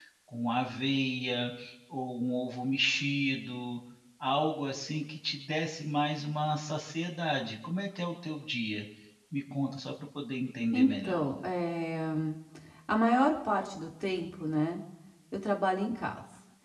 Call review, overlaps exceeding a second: none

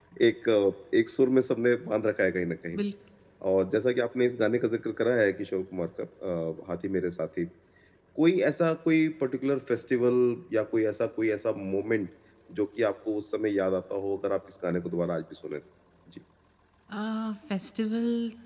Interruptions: none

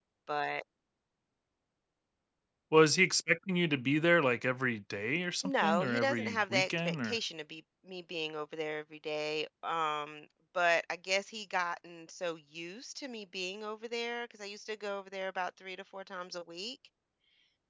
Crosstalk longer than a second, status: present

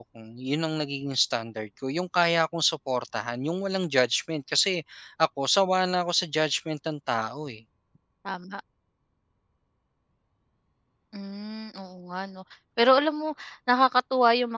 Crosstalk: none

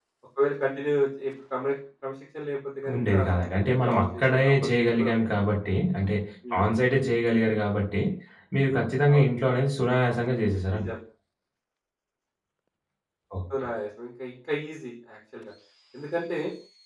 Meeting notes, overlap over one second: present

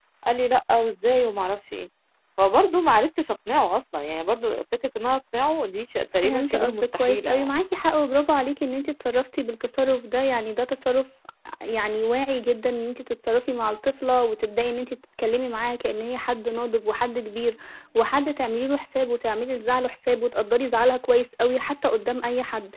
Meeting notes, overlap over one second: present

